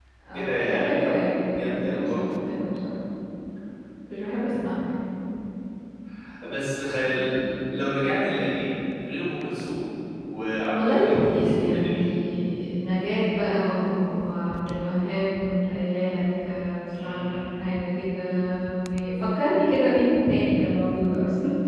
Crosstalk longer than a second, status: present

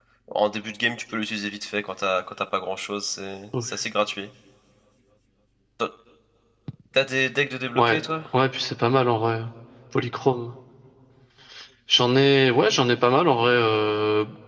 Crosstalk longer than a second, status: none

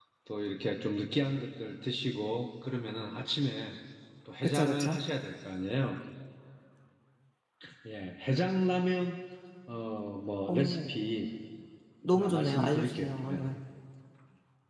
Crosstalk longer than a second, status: present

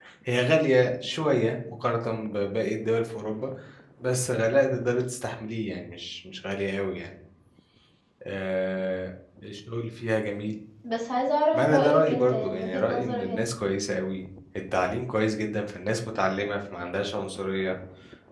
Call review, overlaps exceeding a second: present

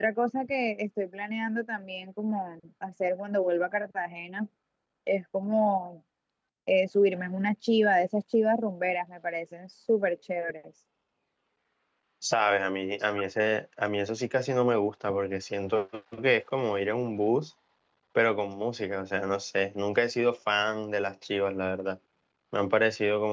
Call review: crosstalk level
none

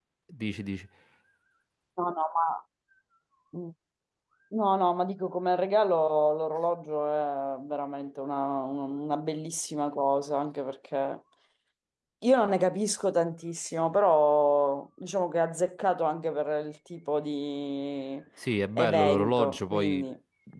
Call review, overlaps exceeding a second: present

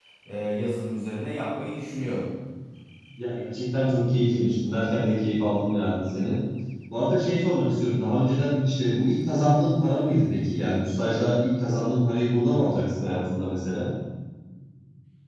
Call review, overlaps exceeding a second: none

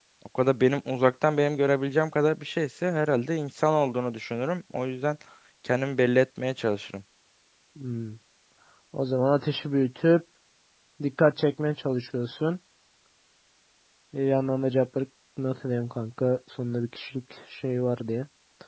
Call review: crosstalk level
none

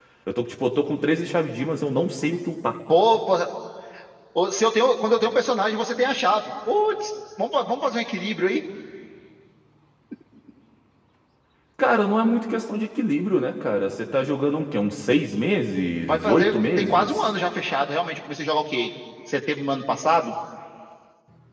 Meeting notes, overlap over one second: present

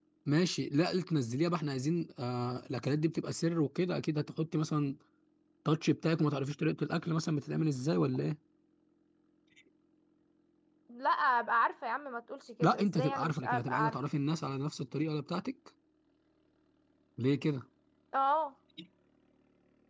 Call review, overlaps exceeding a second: present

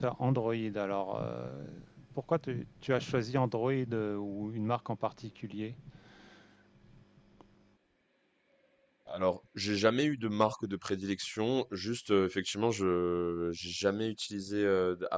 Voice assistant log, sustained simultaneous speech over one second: none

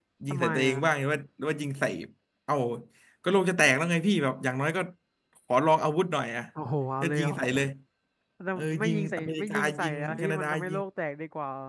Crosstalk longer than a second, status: present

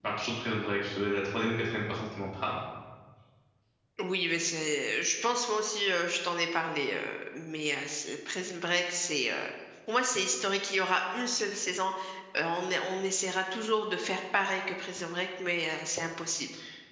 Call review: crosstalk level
none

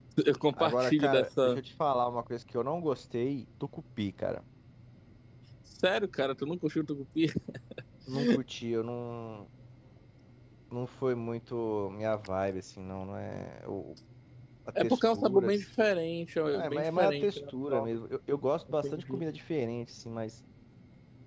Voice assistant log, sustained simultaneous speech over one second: present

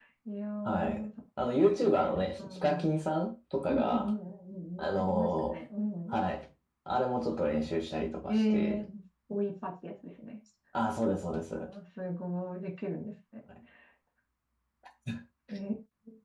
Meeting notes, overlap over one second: present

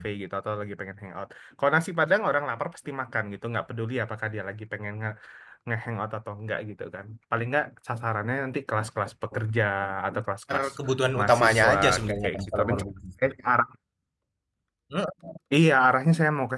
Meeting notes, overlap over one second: present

